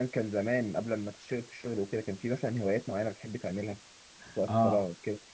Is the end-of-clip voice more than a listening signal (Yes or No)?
Yes